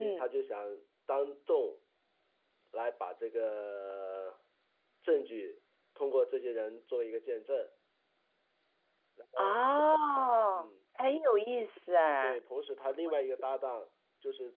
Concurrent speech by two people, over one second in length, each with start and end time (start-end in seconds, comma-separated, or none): none